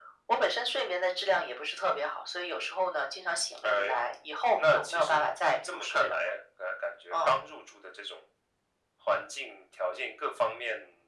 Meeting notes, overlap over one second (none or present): present